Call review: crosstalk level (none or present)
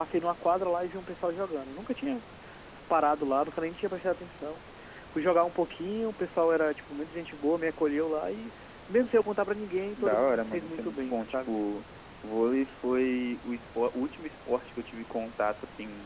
present